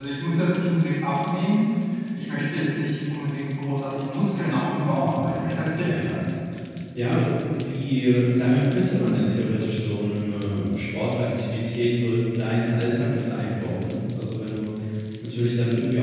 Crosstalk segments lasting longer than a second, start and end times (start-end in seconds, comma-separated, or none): 4.7-6.3